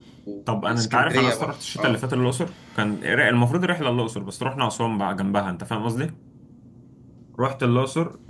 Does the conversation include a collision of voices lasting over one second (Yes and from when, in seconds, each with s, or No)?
Yes, from 0.6 s